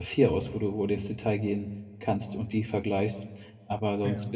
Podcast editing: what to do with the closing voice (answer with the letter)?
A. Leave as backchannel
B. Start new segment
A